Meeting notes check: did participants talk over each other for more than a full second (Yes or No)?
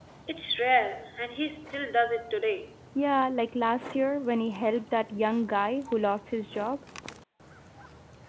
No